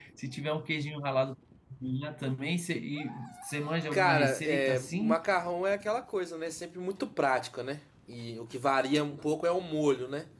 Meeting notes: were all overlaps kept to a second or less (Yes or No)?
No